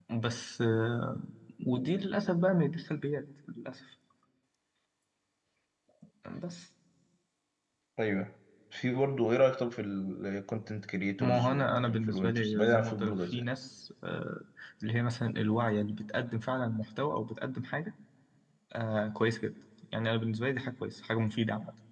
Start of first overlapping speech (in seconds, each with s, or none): 11.2 s